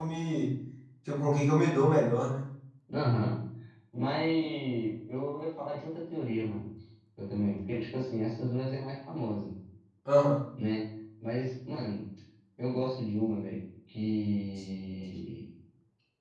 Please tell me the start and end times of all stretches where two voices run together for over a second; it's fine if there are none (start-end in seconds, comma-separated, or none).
none